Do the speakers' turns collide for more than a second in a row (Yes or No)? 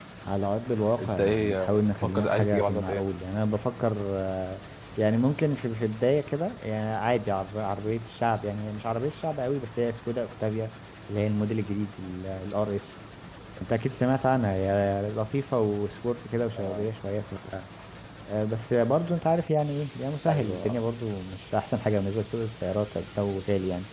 Yes